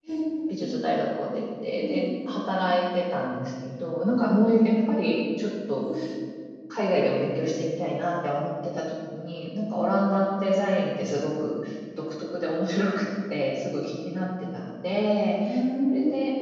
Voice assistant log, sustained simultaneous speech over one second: none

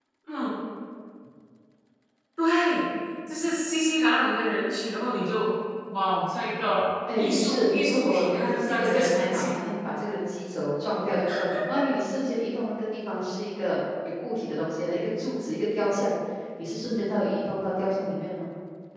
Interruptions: present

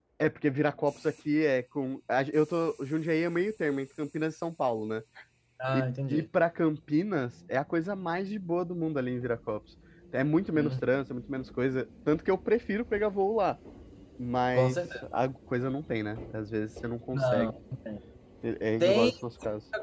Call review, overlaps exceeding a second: none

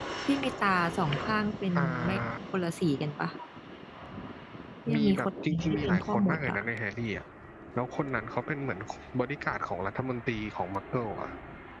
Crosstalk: present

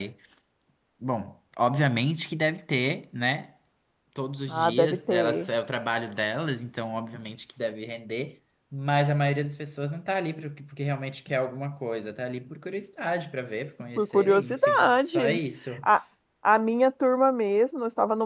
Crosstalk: present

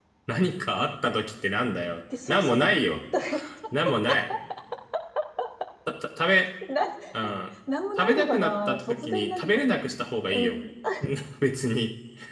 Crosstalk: present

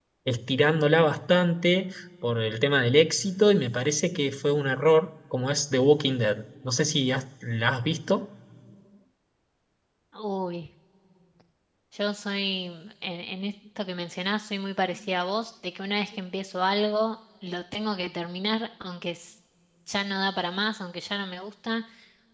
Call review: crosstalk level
none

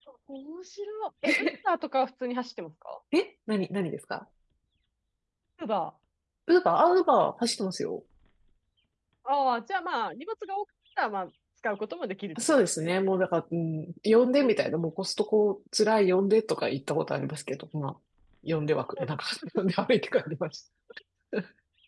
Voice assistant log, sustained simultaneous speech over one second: none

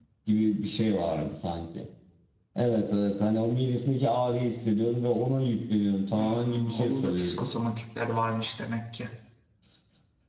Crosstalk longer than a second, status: present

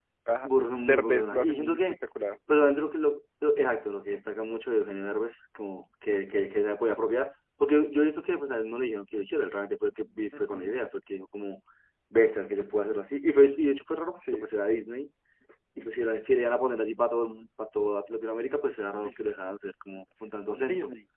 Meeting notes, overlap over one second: present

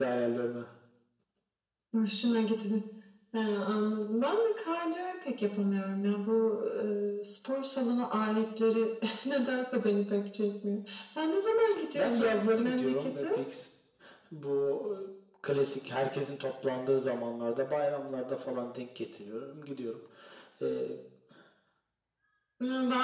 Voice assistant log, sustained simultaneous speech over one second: present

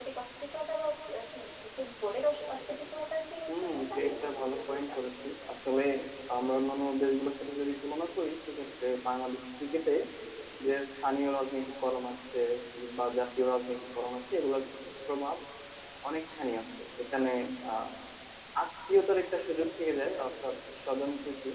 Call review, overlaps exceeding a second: present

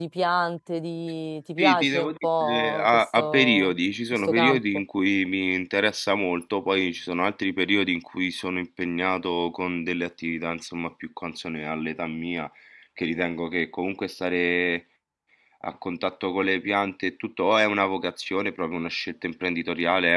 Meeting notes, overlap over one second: present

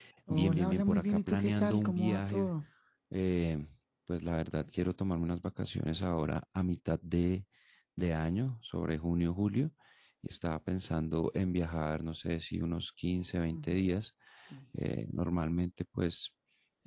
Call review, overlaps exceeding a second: present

